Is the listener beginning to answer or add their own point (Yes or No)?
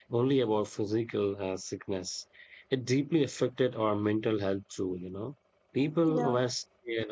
No